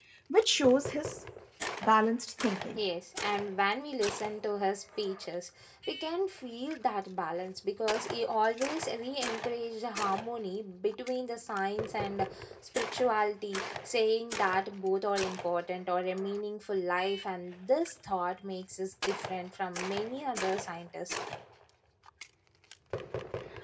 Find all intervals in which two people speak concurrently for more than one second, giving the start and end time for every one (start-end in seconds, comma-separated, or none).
none